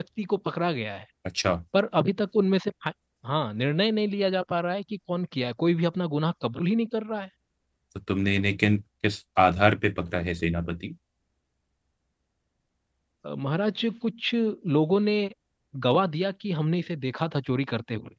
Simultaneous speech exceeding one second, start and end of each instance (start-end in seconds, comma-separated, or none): none